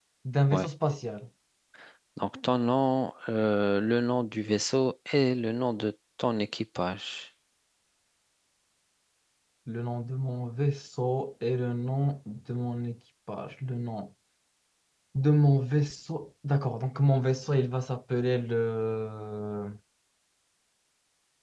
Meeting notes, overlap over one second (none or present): none